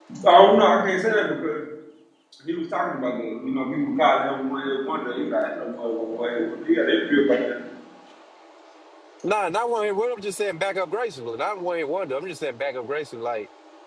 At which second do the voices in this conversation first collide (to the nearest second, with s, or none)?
none